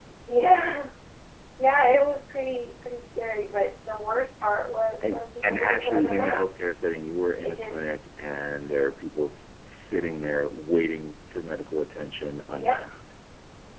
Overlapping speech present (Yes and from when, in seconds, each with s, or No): Yes, from 5.0 s